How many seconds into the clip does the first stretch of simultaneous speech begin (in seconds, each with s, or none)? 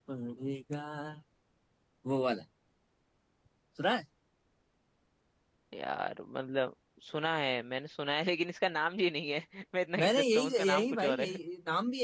10.0 s